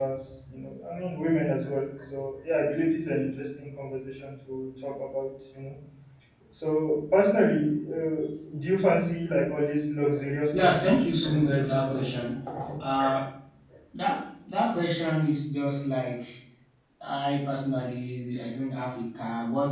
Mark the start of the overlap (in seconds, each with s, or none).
10.5 s